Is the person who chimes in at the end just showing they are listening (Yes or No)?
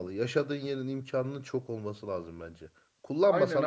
No